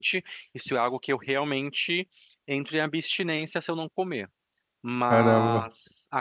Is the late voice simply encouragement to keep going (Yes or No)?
Yes